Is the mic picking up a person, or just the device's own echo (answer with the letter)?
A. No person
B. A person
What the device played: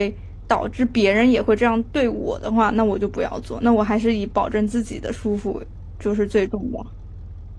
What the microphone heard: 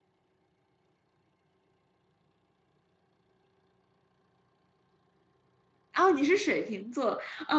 B